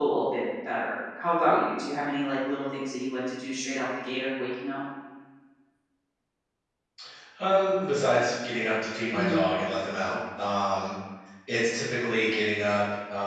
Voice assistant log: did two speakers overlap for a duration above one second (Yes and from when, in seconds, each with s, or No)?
No